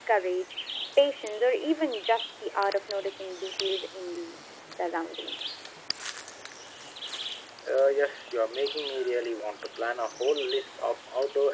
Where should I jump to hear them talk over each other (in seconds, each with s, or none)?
none